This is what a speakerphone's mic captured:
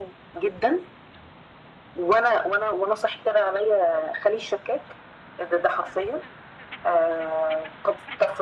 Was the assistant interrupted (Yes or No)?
No